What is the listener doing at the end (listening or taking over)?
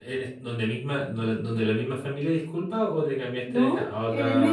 taking over